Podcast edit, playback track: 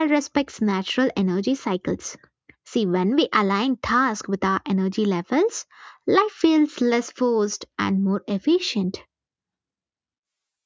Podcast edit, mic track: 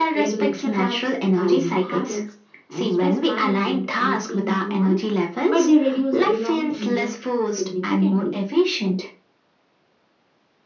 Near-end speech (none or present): present